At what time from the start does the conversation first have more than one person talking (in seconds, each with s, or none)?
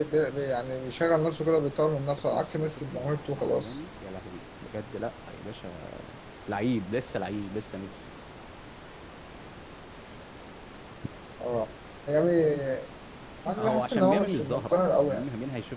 2.2 s